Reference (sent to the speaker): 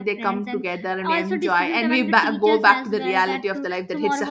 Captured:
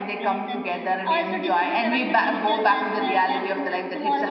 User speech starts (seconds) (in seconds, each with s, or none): none